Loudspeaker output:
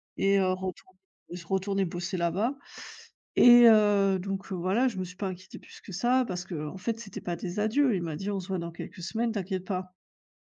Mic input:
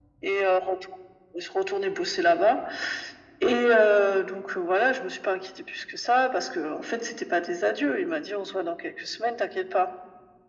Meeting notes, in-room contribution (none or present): none